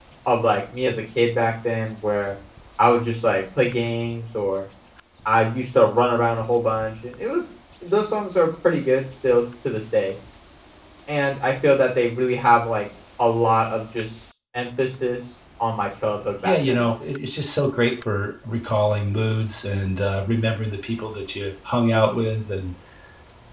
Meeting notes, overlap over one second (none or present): none